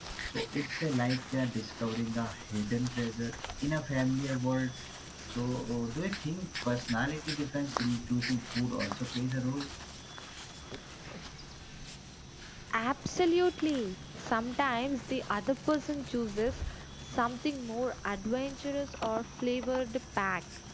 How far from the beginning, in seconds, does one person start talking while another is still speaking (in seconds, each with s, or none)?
none